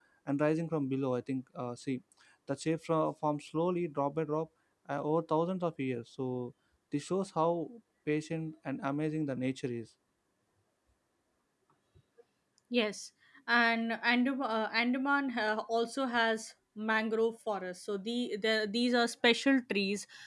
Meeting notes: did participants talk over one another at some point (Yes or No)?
No